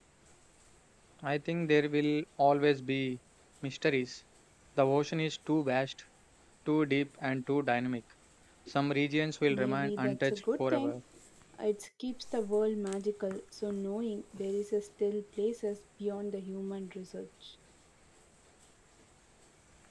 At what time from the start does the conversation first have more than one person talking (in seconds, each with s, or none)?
9.5 s